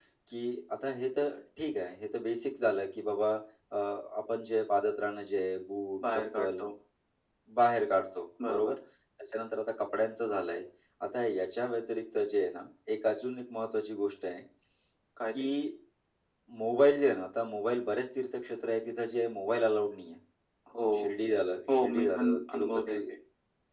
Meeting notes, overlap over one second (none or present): present